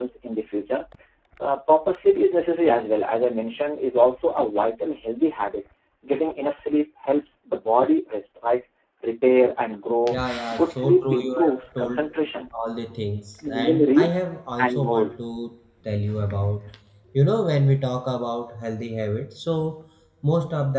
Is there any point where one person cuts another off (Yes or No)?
Yes